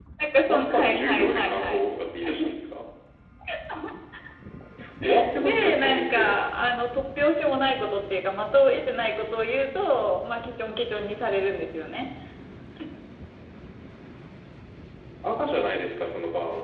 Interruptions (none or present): present